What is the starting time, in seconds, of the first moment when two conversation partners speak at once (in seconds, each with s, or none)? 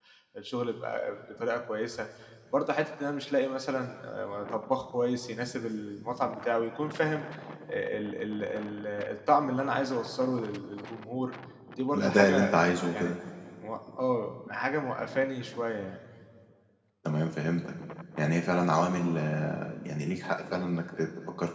11.9 s